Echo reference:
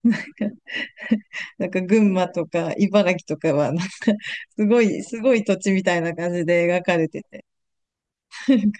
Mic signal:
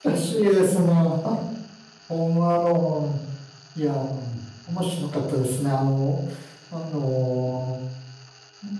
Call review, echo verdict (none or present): none